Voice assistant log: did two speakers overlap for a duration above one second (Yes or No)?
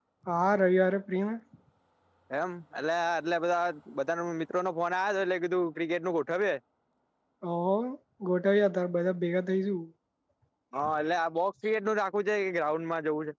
No